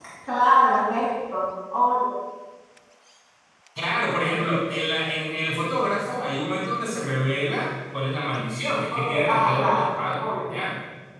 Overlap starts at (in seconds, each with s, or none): 8.9 s